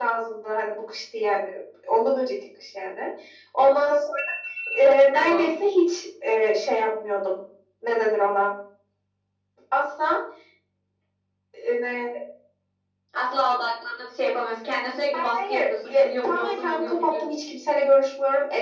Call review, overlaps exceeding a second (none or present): present